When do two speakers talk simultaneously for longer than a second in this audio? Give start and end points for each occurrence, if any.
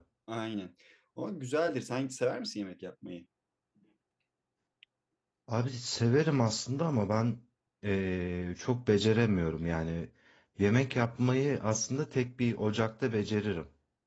none

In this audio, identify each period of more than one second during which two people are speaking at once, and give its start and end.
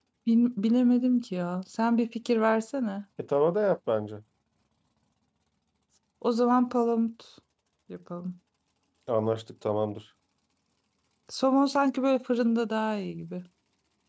none

